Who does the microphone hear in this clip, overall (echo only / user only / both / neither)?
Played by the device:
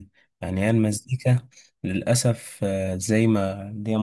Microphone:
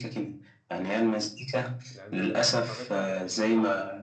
both